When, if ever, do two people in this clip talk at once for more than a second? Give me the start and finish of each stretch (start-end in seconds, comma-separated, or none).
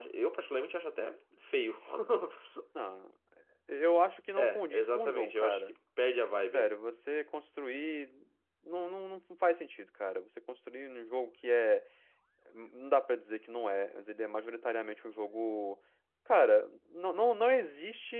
4.4-5.7